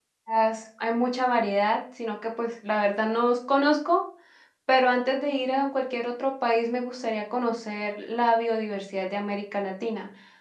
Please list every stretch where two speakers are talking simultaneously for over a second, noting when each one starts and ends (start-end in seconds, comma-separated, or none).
none